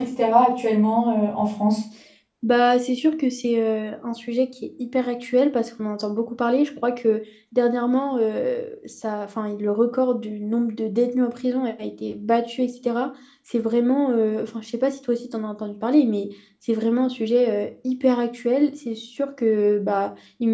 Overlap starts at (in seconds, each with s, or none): none